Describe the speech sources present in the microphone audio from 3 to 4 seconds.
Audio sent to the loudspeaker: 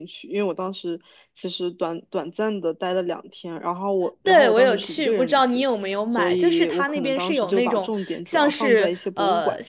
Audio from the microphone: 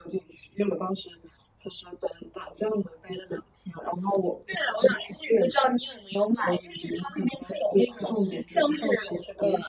echo only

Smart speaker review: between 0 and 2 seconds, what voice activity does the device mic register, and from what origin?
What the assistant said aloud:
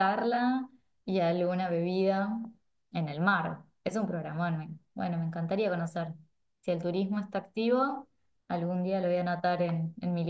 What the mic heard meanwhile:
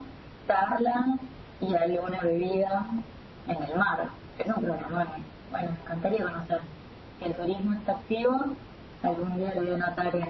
echo only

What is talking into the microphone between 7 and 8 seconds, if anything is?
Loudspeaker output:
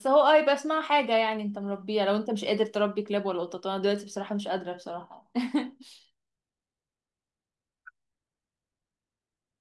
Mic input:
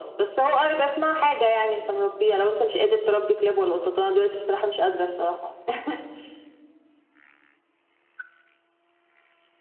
neither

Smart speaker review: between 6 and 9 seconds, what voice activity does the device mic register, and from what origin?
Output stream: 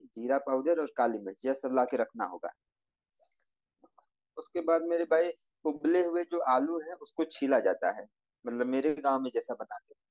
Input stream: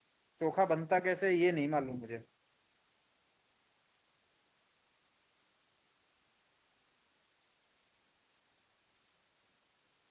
neither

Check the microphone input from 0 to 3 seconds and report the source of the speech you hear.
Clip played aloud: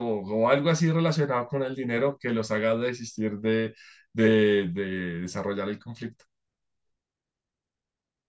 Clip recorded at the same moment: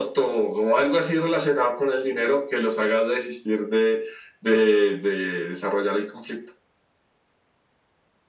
echo only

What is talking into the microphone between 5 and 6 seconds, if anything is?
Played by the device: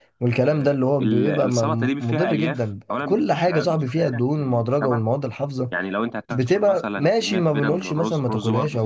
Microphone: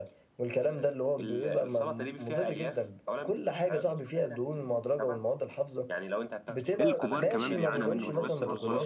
echo only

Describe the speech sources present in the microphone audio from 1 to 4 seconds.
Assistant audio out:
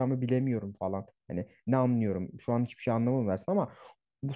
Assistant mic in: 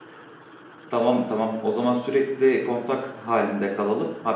user only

